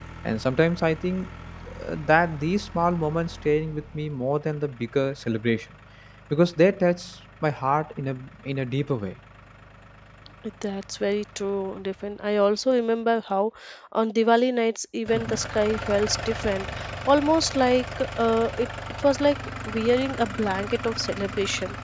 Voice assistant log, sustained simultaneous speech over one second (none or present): none